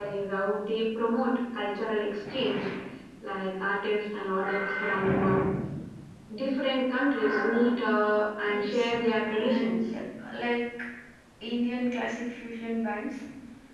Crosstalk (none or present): present